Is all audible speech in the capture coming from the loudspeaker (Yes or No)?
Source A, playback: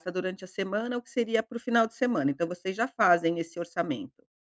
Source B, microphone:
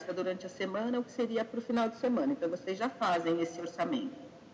Yes